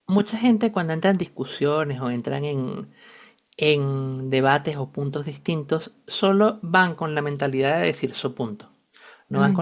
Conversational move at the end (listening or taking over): listening